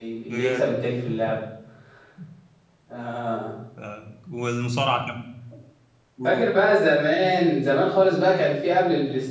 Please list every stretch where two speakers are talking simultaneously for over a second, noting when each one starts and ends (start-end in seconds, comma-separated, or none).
none